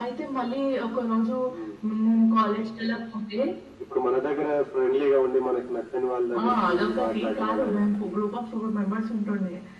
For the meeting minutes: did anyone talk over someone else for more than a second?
Yes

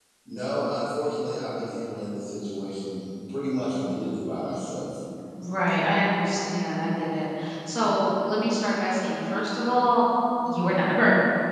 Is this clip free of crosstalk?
Yes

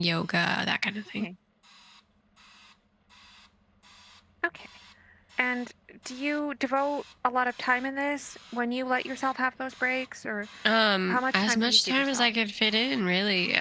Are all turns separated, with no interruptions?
No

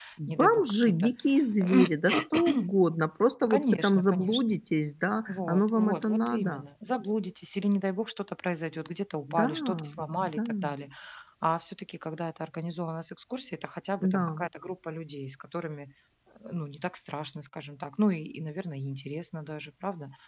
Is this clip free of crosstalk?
No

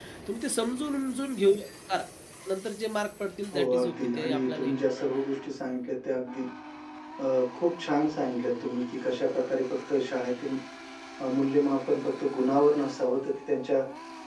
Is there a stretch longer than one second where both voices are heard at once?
Yes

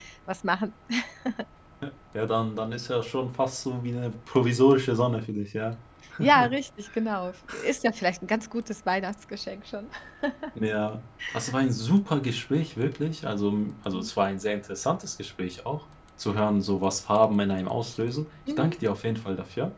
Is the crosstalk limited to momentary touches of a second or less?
Yes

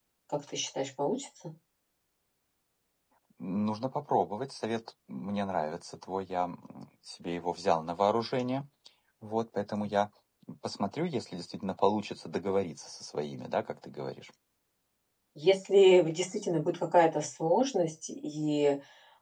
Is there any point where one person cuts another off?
No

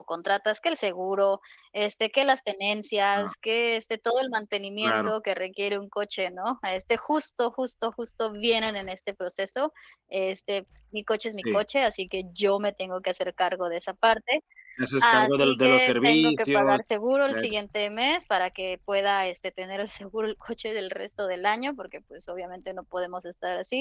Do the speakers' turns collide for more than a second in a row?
Yes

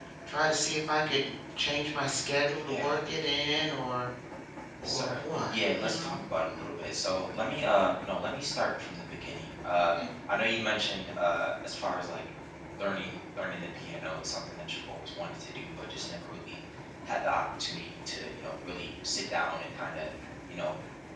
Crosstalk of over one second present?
Yes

